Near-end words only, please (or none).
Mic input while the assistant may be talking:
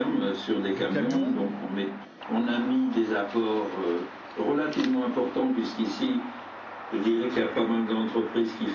de camion,